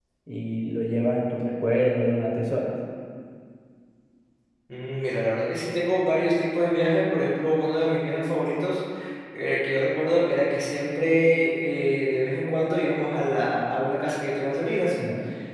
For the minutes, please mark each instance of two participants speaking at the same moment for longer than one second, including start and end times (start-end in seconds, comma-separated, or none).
none